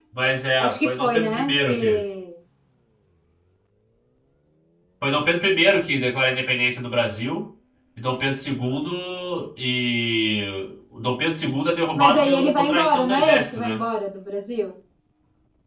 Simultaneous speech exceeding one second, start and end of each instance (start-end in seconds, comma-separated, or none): 0.6-2.0, 11.9-13.8